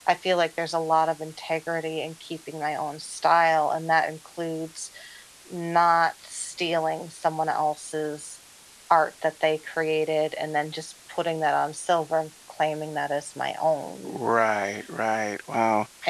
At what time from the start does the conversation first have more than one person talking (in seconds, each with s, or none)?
none